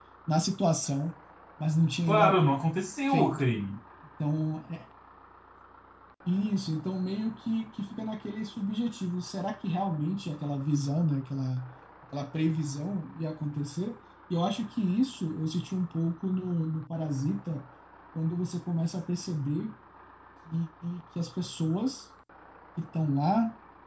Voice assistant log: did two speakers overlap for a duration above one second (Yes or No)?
No